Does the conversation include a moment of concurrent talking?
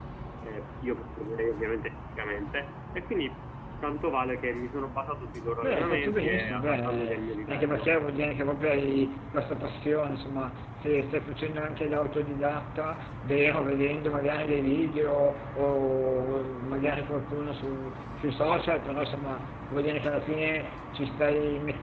Yes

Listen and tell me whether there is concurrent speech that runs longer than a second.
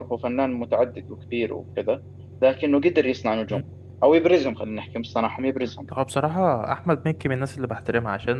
No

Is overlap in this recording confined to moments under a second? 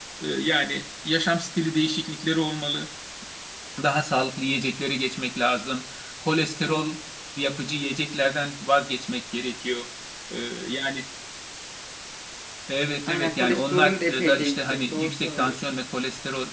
No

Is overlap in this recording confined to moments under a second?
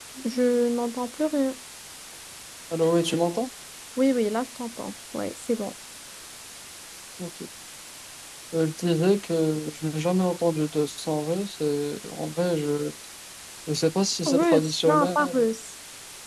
No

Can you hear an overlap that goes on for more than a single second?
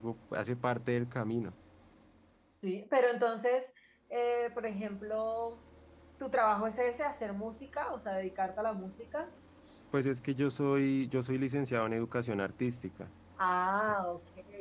No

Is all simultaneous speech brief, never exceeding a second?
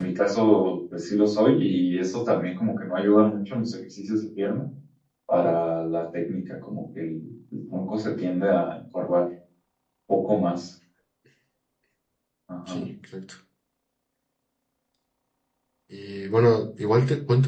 Yes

